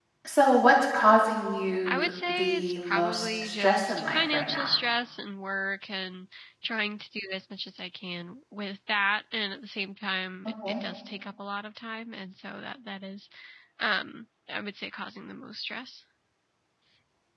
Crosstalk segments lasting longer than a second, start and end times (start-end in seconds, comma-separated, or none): 1.9-4.8